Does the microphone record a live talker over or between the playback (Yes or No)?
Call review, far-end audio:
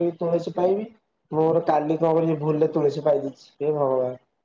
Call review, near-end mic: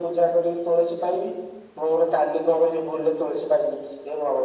No